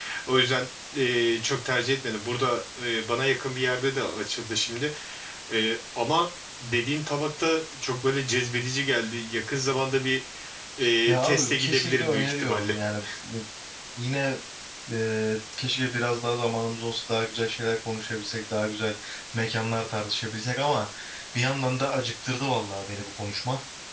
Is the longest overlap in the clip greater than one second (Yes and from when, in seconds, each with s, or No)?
Yes, from 11.1 s